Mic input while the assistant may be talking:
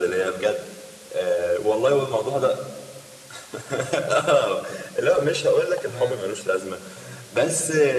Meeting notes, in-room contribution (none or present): present